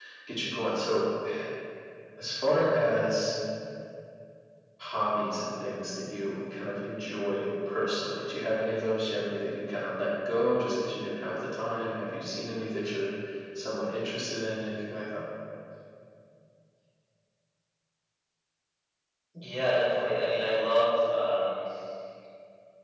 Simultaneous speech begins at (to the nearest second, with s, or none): none